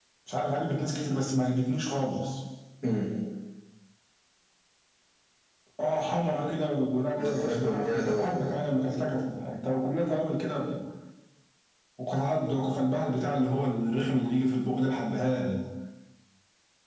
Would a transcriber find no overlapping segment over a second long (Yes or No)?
No